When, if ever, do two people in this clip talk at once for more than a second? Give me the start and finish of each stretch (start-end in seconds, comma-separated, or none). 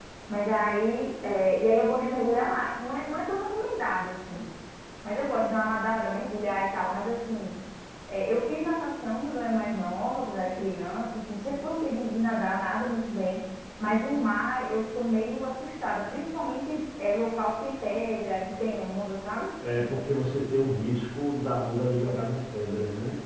none